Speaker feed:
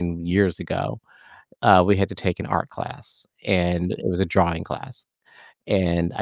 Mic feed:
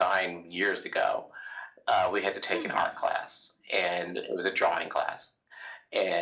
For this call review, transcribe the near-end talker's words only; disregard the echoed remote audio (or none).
Hmm.